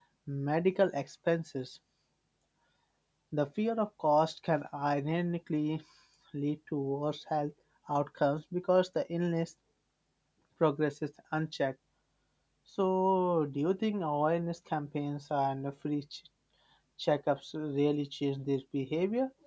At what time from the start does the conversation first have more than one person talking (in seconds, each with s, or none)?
none